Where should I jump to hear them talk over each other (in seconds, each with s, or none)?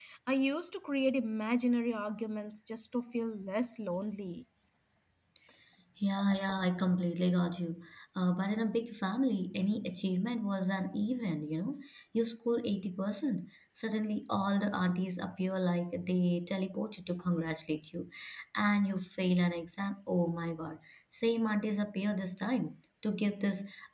none